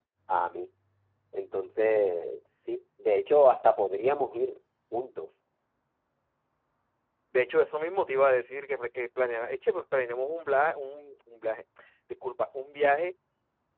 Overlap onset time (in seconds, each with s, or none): none